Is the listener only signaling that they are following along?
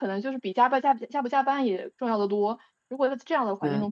Yes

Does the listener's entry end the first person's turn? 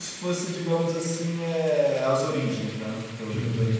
Yes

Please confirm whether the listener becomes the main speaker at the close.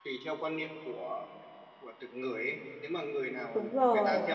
No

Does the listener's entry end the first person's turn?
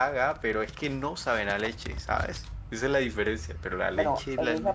Yes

